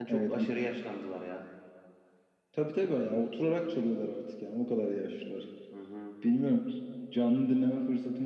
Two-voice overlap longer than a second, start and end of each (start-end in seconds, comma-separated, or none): none